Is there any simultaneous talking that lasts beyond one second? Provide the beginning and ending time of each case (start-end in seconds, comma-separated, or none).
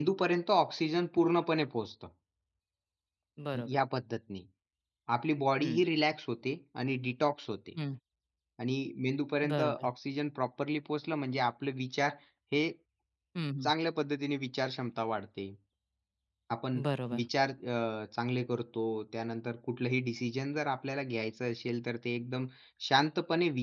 none